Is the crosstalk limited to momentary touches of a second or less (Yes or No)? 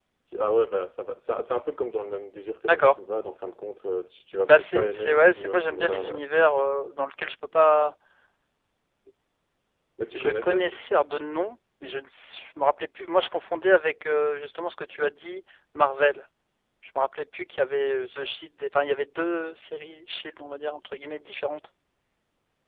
No